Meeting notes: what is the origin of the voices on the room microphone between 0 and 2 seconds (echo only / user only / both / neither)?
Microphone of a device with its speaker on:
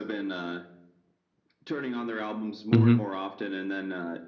echo only